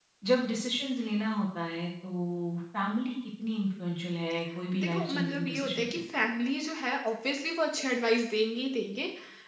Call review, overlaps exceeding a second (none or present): present